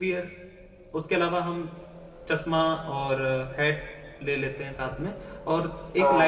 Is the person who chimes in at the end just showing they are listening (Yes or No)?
Yes